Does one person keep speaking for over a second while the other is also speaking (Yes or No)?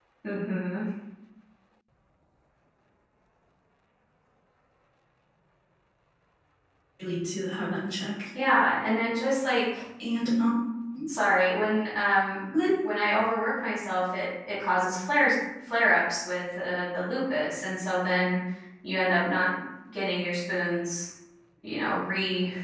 No